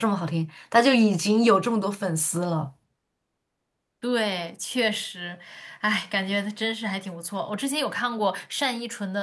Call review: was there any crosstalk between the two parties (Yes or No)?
No